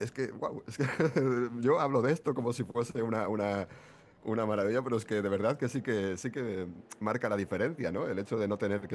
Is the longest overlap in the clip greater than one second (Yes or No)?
No